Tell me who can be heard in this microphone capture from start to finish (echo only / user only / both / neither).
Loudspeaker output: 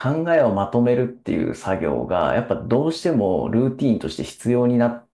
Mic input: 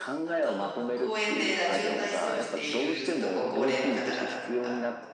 both